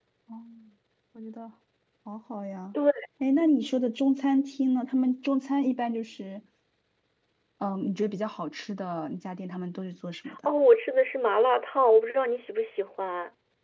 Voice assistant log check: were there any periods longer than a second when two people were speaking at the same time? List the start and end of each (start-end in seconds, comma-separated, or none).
none